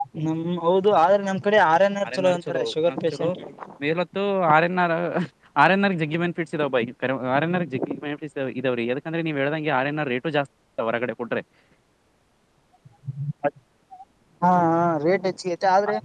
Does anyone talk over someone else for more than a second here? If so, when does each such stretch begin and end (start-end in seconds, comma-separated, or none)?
2.1-3.3